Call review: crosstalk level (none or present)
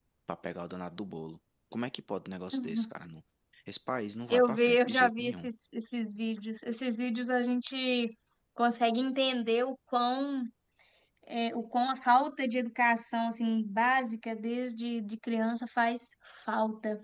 present